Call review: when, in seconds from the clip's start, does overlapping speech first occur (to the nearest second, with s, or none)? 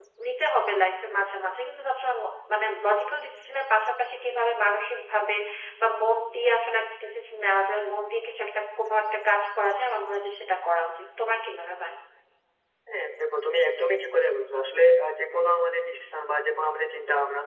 none